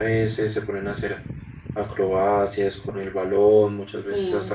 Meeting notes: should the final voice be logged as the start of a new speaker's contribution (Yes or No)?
Yes